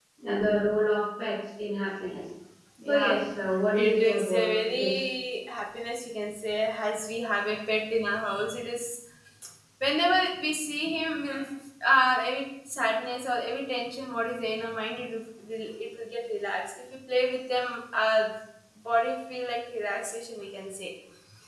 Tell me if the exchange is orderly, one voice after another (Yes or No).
No